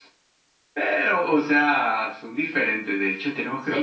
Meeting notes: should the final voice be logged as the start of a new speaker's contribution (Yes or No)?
No